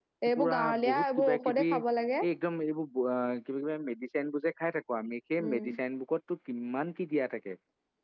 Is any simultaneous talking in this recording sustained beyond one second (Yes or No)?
Yes